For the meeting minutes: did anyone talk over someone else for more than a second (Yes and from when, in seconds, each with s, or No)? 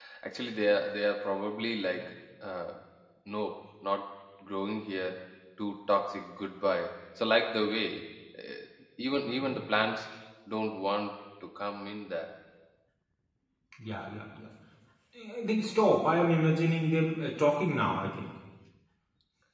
No